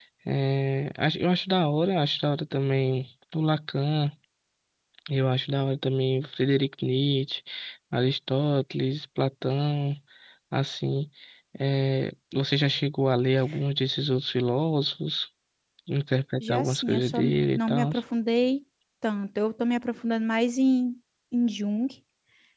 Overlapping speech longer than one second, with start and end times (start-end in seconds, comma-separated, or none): 16.4-17.9